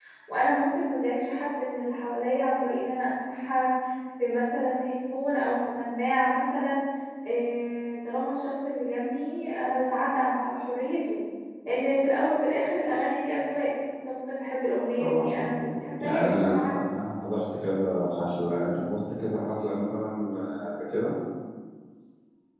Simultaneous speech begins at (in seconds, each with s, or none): 15.0 s